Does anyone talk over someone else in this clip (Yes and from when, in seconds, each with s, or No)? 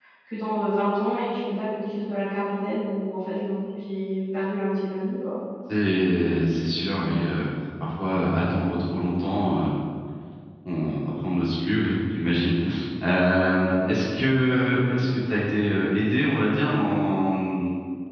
No